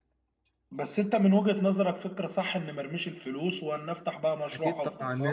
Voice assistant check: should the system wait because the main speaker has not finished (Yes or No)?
No